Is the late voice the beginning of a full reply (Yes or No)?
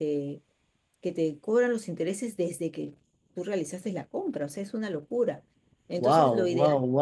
Yes